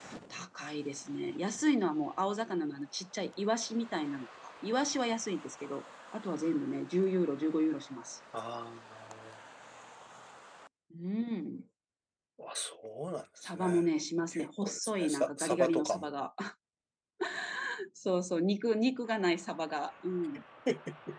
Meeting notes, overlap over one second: present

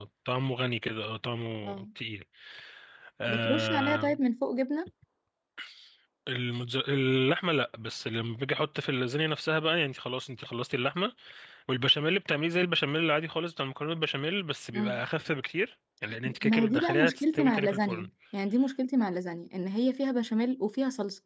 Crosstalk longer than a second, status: present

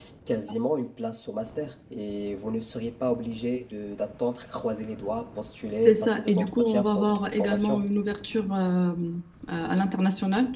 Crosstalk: present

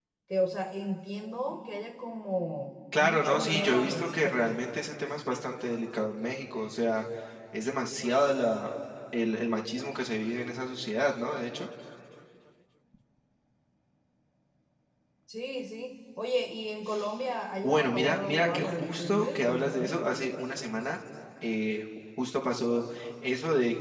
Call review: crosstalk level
present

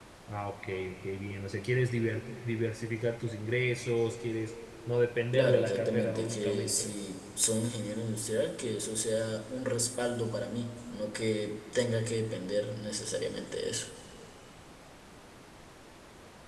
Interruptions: present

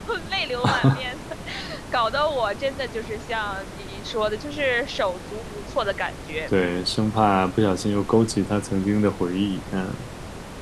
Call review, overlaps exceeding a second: none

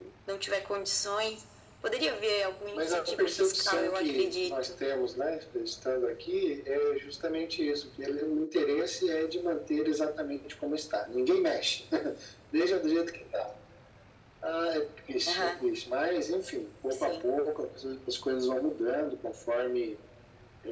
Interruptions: present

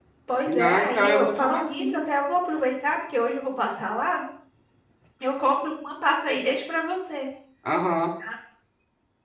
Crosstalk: present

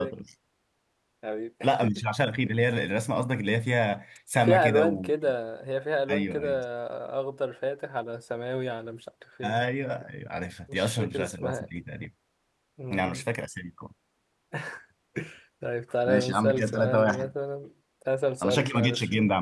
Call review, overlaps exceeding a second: present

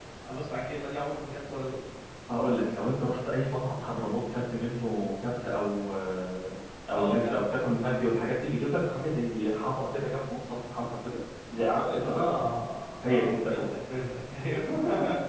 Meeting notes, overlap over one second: present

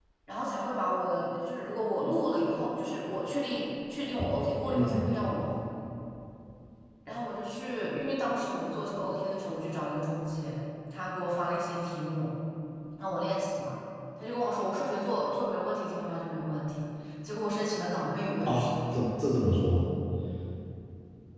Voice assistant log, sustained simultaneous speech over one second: none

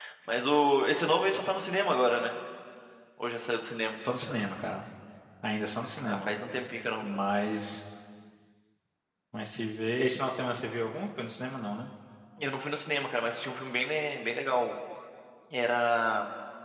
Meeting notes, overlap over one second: none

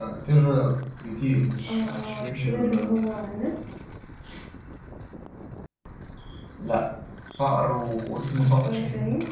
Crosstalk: present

